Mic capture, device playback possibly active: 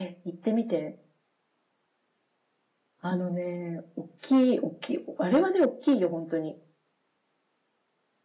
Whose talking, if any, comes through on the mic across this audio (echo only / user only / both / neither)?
user only